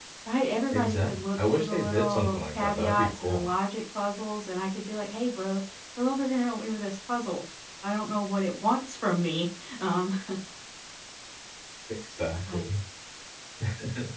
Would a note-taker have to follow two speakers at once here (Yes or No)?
Yes